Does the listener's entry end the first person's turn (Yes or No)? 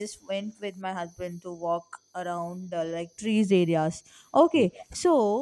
No